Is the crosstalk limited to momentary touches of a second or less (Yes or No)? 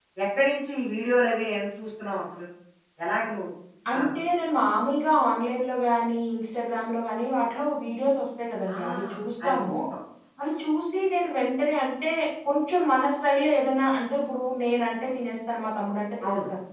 Yes